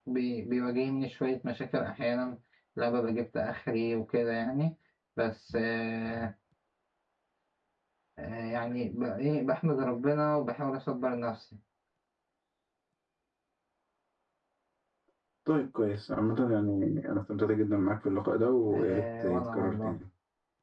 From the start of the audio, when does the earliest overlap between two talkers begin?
18.7 s

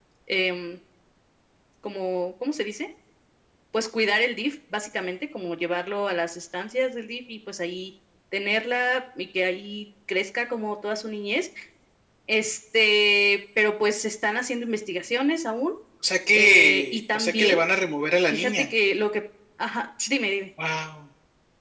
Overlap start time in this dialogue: 16.3 s

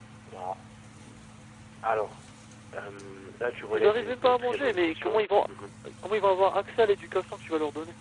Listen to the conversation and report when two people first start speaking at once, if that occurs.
3.6 s

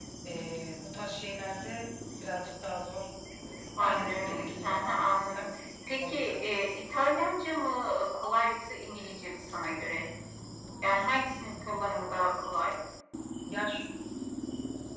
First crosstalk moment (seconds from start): 3.8 s

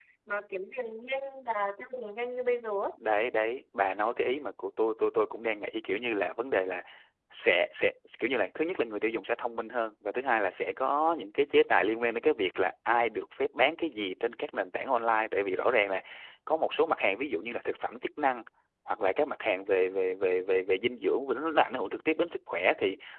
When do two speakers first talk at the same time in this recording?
none

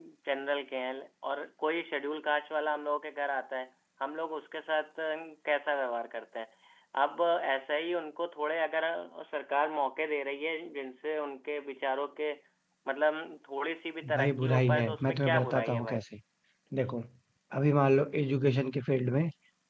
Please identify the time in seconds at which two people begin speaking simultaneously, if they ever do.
14.0 s

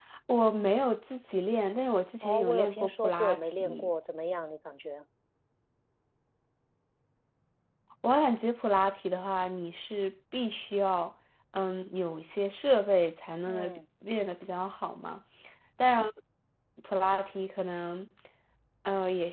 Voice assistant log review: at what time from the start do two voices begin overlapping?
2.2 s

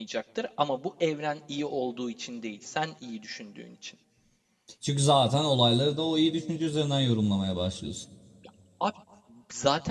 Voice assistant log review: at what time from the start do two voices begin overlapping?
none

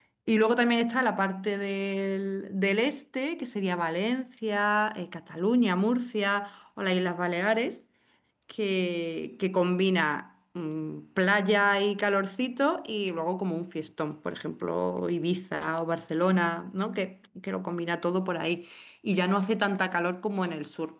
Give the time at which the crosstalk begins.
none

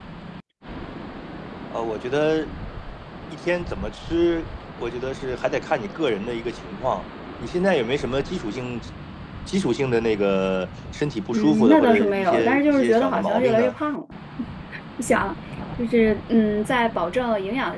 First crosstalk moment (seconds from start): 11.3 s

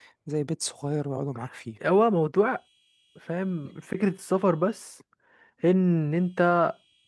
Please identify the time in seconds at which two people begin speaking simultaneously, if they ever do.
none

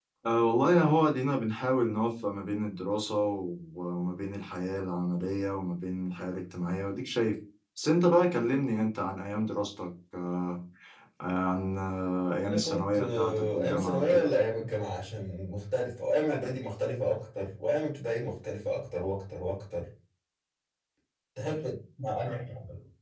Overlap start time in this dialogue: 12.4 s

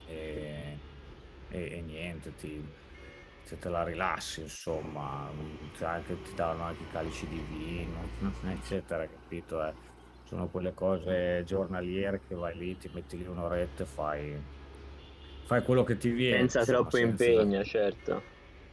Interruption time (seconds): 16.3 s

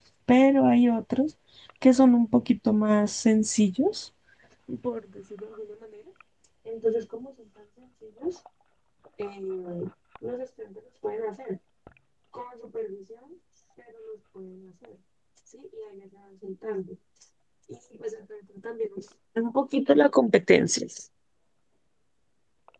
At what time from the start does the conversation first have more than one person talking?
none

